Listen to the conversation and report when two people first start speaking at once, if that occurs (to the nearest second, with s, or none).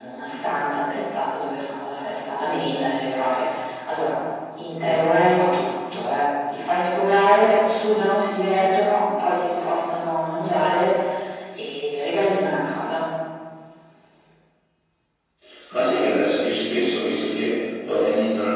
none